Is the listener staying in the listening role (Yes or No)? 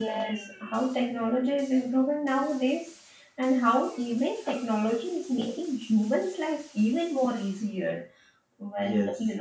Yes